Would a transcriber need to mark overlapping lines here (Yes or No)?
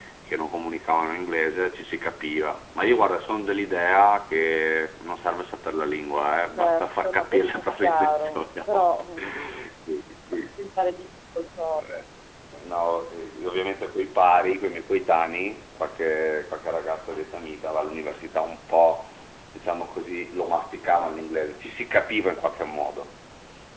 Yes